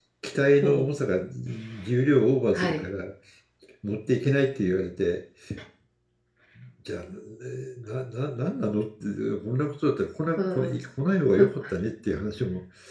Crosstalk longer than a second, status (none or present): none